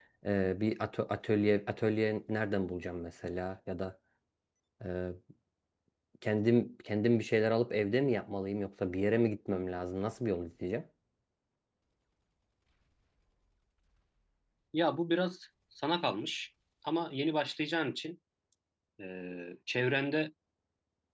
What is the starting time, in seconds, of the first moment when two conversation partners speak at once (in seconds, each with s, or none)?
none